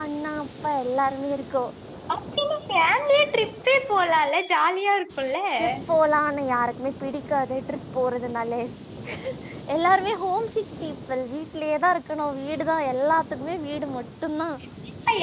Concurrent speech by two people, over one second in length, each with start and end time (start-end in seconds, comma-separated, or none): none